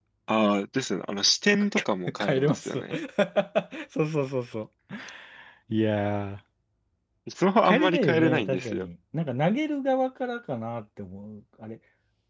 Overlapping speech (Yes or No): Yes